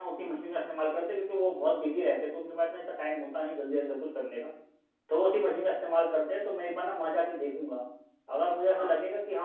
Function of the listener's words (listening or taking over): listening